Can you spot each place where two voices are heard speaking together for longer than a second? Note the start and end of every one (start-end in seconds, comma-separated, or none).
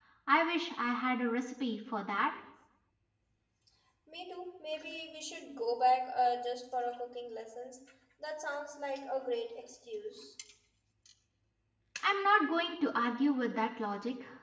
none